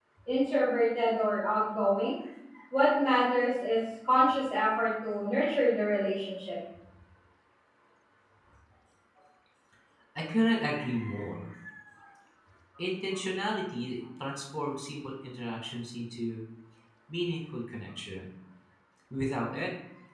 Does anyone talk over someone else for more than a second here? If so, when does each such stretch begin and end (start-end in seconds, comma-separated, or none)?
none